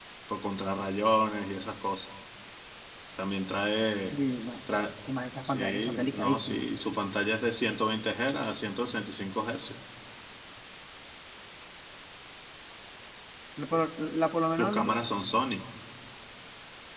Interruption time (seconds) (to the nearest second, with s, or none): 5 s